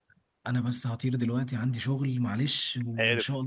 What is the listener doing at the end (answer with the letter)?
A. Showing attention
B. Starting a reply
A